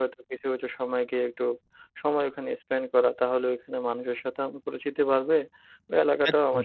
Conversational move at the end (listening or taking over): listening